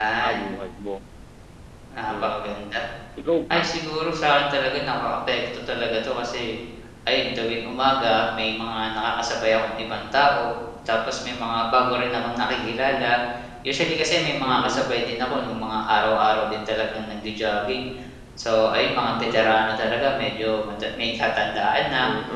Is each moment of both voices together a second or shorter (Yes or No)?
Yes